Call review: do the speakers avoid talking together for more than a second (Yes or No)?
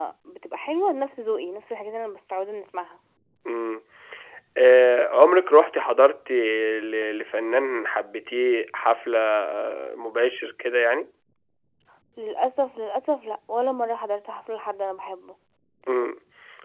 Yes